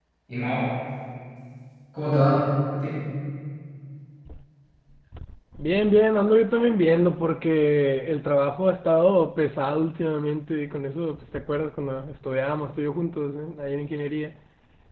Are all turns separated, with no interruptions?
Yes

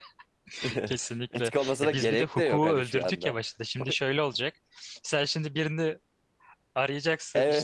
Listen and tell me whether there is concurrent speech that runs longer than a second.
Yes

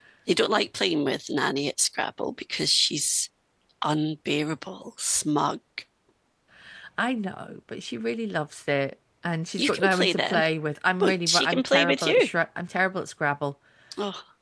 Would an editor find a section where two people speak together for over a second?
Yes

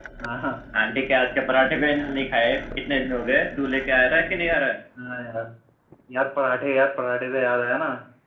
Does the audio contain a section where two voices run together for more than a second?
No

